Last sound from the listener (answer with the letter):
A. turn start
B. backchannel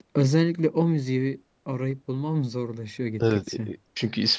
A